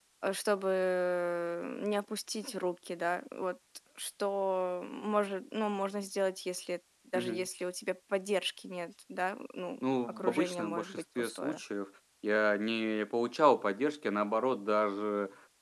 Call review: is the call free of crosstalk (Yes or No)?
No